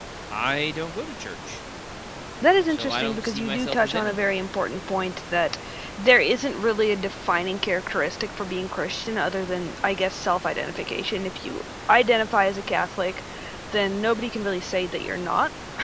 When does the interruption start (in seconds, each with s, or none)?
2.7 s